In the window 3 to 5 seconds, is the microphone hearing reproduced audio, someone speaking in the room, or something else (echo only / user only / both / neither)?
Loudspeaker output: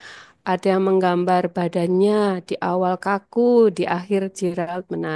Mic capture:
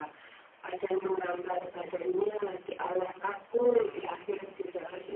both